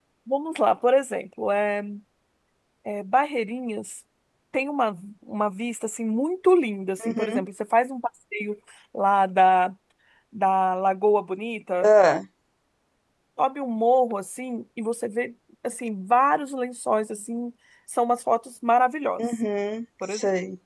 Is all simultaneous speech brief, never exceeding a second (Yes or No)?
Yes